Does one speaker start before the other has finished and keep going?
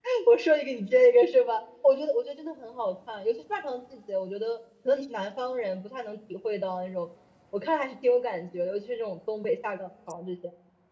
No

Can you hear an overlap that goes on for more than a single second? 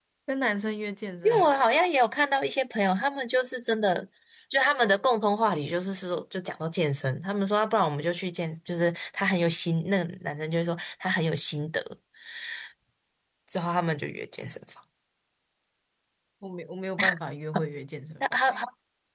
No

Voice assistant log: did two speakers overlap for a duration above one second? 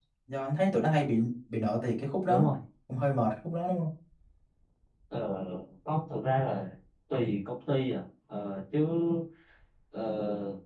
No

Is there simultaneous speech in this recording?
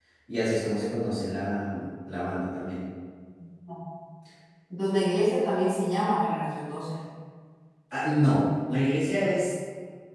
No

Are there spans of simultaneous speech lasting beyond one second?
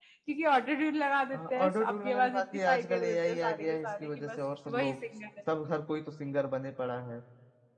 Yes, from 1.3 s

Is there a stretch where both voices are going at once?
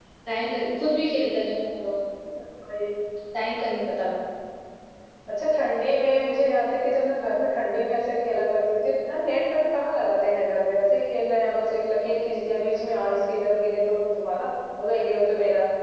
No

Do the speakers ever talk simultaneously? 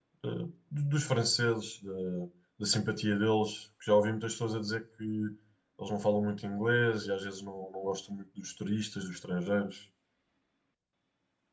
No

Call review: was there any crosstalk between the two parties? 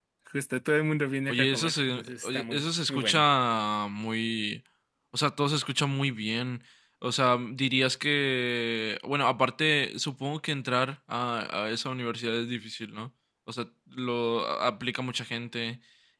Yes, from 1.3 s

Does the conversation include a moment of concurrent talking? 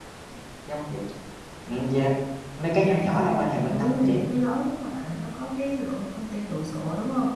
Yes, from 2.8 s

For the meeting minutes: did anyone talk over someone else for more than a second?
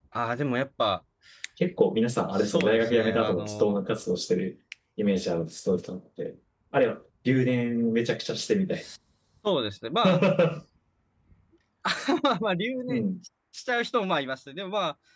Yes, from 2.3 s

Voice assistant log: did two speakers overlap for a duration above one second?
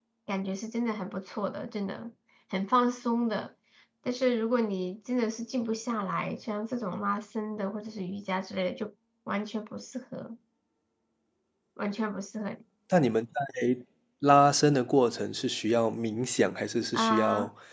No

